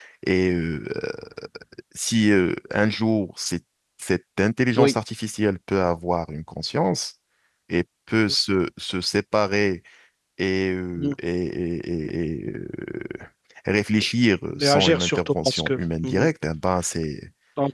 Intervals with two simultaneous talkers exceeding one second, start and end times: 14.6-16.3

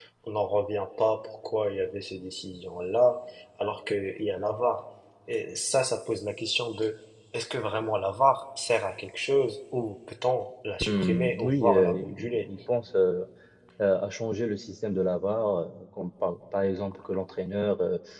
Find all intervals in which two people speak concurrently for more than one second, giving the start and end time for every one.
10.8-12.5

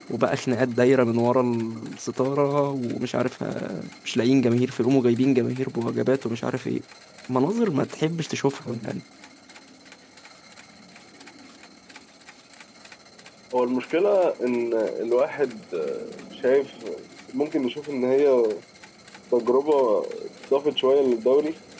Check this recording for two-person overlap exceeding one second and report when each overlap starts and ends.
none

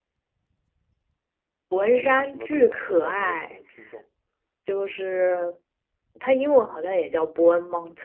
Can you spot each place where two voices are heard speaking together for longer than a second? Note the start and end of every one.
1.8-3.6

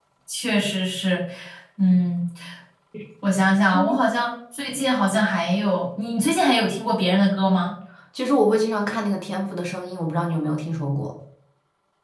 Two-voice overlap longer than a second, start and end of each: none

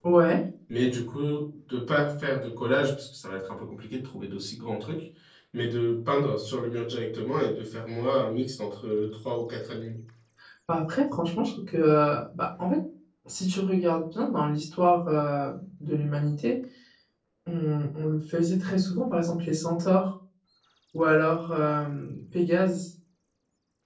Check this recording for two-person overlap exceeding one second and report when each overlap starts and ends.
none

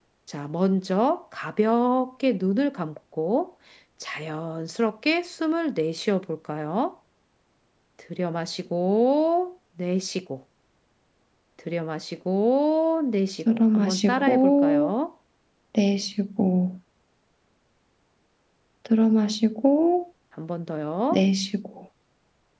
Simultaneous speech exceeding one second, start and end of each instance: 13.5-14.9

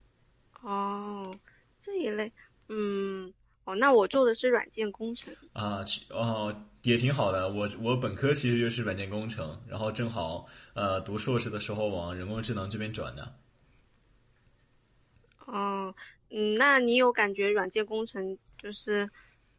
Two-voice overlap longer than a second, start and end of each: none

